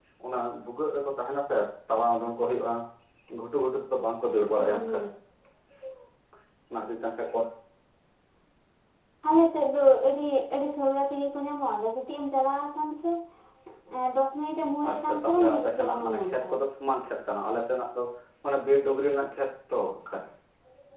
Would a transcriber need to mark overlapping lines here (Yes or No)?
Yes